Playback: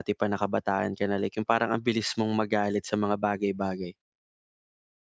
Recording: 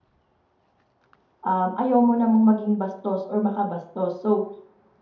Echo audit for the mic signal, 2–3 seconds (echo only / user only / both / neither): user only